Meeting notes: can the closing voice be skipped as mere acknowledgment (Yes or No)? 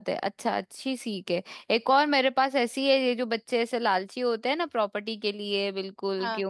Yes